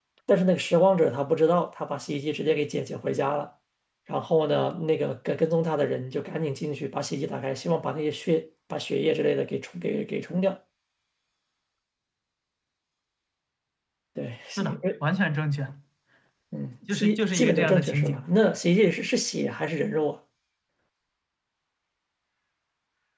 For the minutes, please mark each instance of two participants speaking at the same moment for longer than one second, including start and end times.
16.9-18.2

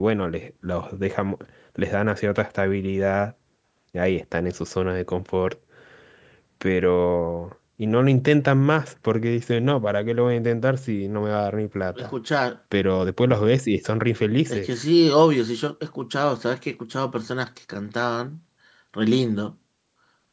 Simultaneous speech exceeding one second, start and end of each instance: none

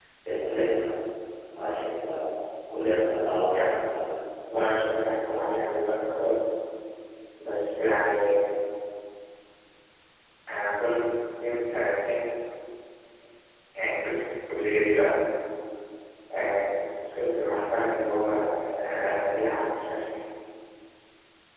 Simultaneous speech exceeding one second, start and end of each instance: none

